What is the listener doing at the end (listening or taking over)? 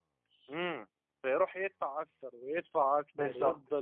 taking over